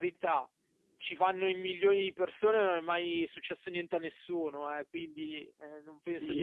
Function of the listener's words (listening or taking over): taking over